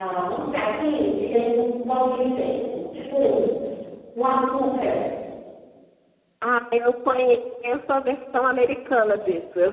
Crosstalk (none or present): none